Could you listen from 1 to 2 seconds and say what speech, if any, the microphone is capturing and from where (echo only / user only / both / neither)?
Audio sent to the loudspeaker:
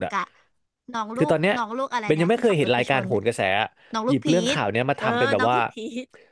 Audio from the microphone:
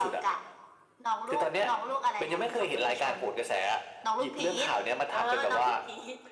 echo only